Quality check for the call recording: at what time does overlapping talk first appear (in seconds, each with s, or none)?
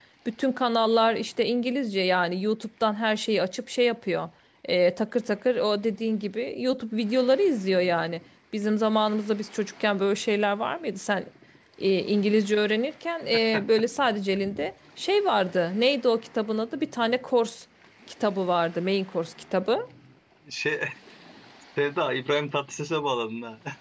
none